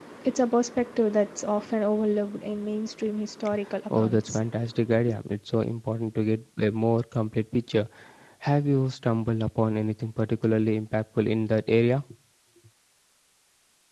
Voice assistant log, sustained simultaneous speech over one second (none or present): none